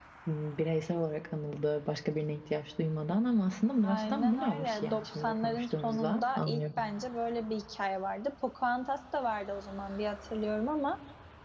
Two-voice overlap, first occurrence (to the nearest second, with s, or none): 4 s